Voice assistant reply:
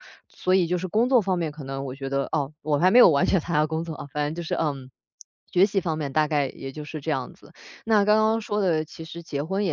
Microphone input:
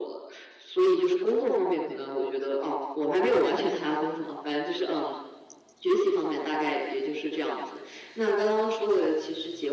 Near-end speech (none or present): none